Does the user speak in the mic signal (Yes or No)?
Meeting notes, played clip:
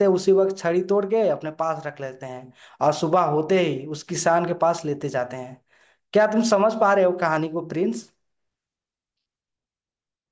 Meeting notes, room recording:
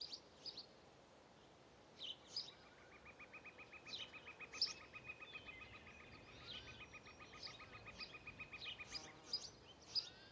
No